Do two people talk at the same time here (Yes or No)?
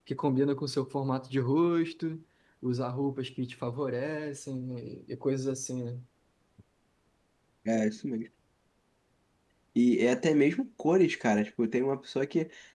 No